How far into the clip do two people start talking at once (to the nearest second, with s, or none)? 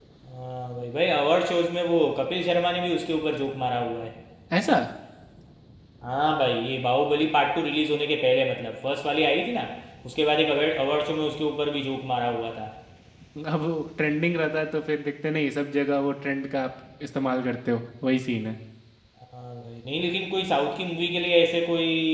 none